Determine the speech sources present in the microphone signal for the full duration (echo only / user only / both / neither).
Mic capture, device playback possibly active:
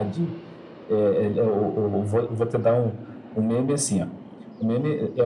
echo only